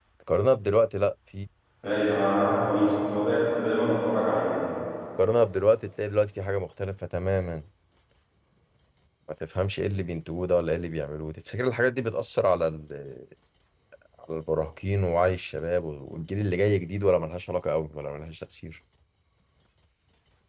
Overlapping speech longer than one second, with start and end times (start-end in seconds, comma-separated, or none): none